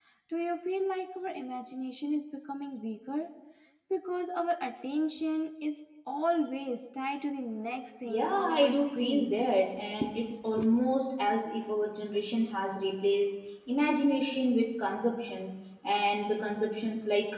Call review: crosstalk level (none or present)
present